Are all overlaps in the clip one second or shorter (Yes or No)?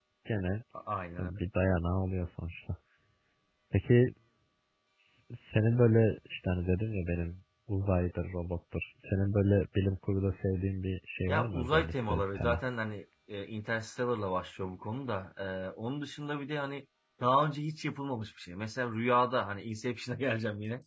No